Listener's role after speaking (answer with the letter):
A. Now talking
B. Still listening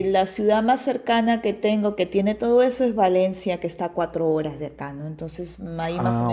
B